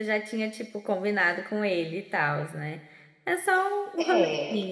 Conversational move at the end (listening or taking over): taking over